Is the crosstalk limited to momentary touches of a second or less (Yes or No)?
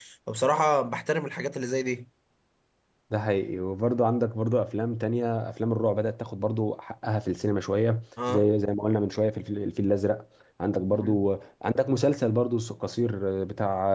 Yes